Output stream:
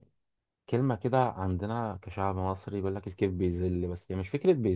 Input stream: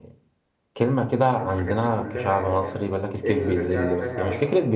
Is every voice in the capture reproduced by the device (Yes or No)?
No